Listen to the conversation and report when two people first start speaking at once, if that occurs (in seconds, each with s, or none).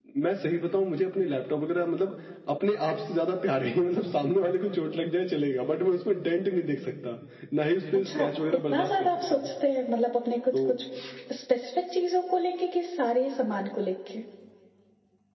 7.9 s